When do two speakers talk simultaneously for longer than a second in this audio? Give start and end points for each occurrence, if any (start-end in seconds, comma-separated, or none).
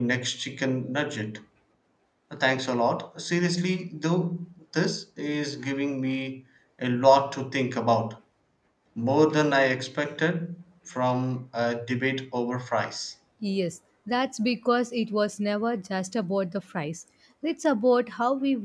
none